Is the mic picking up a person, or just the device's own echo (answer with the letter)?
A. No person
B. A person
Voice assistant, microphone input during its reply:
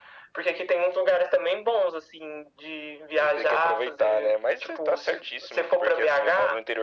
A